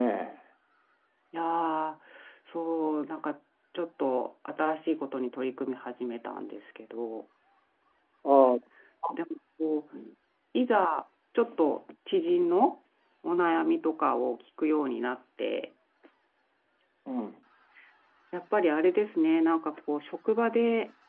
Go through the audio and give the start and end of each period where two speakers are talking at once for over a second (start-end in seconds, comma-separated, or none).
none